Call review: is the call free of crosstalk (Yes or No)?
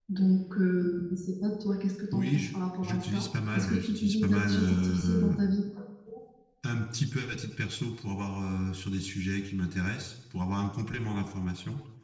No